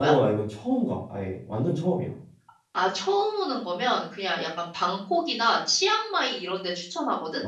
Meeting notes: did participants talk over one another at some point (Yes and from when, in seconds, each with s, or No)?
No